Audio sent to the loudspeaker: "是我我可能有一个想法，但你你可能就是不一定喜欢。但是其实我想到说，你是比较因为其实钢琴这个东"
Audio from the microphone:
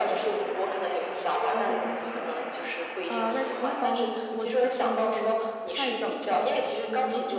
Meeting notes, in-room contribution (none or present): present